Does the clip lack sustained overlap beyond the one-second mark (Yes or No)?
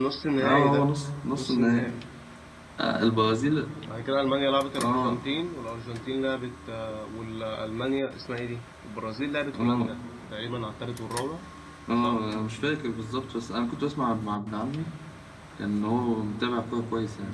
Yes